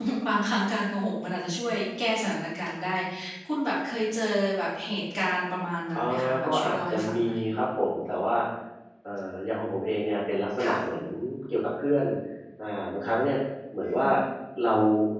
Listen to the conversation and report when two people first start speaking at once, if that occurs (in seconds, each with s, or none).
6.0 s